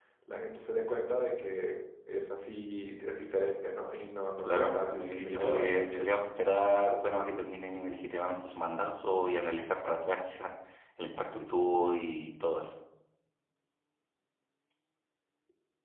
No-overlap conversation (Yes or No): No